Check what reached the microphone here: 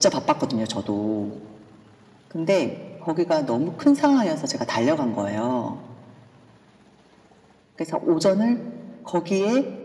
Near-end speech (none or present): none